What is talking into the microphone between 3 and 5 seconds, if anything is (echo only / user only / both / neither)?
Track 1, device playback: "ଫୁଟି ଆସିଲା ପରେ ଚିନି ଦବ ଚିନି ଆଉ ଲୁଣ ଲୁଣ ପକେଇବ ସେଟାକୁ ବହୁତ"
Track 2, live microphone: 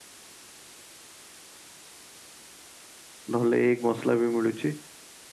user only